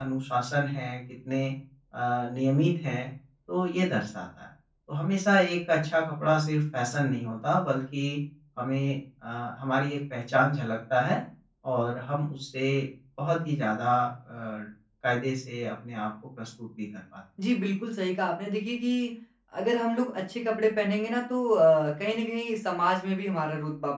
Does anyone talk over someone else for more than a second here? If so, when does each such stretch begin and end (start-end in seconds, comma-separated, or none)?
none